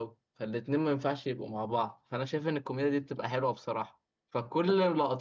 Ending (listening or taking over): listening